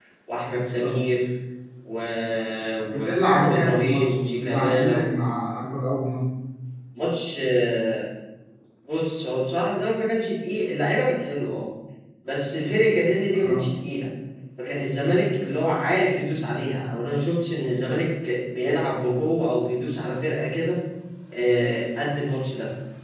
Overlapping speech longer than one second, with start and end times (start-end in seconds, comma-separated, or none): 2.9-5.1